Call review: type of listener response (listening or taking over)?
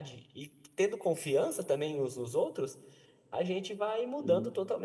listening